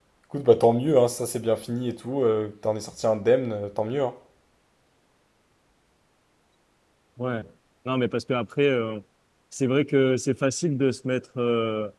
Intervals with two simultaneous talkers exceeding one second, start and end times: none

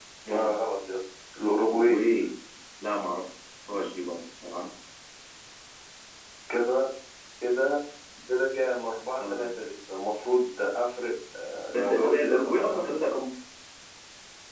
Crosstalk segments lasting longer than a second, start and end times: 11.8-13.2

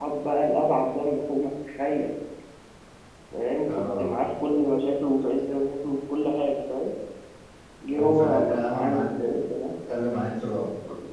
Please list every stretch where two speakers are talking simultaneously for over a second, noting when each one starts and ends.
7.9-9.4

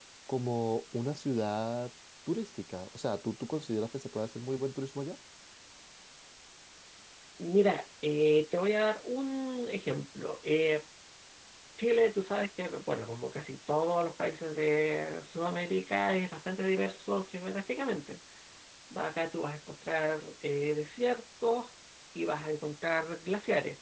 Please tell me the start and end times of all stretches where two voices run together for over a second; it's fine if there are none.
none

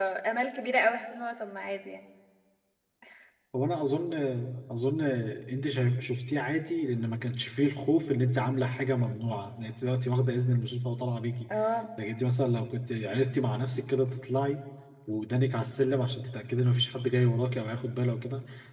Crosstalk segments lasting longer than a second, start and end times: none

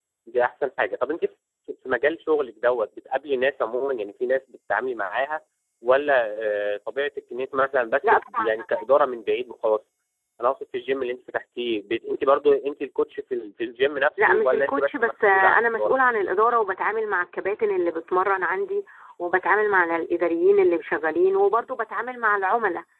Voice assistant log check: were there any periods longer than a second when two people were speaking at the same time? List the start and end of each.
14.2-15.9

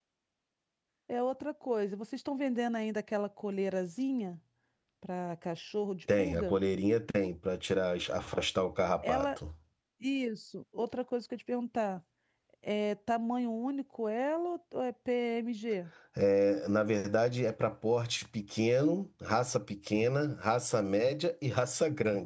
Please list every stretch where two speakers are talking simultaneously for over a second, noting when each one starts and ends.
none

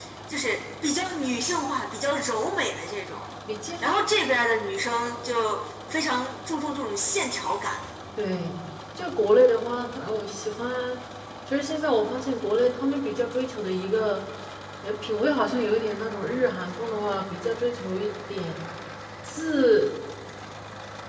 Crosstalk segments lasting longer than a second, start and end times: none

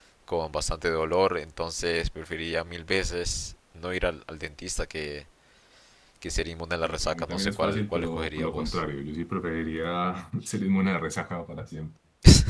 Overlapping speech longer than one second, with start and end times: 6.8-8.8

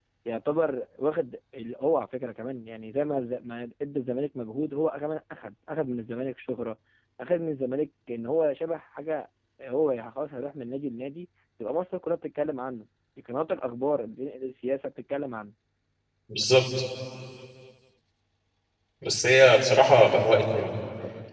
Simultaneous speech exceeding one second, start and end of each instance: none

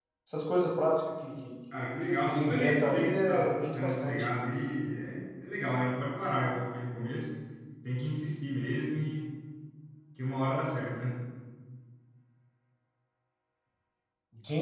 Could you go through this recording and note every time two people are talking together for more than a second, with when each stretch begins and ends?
2.3-4.3

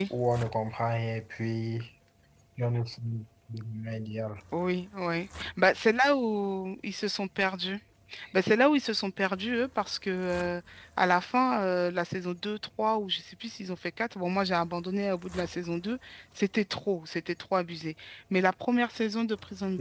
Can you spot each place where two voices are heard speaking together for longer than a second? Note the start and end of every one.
none

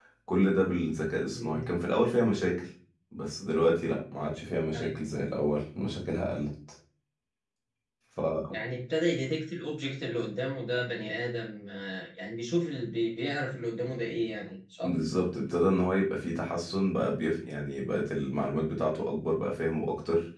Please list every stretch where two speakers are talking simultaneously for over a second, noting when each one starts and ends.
none

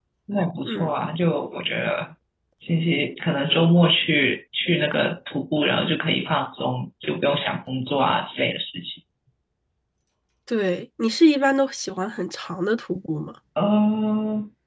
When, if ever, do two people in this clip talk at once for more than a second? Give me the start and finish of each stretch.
none

